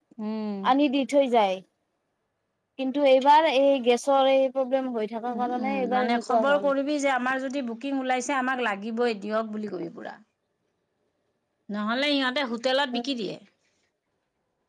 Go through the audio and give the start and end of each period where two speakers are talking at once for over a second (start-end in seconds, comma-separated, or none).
5.3-6.7